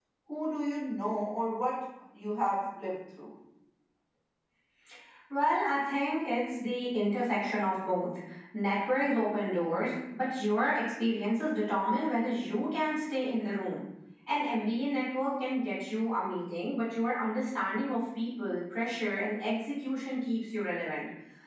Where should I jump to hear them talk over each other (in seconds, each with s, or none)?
none